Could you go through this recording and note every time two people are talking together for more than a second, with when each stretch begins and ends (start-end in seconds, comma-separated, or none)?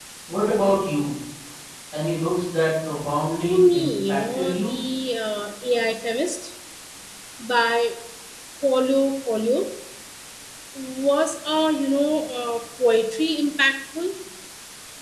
3.5-4.7